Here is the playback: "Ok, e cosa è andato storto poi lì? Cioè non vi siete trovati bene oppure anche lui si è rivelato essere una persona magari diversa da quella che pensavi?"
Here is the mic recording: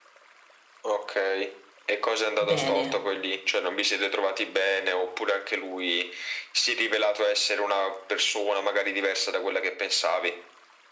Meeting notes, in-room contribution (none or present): present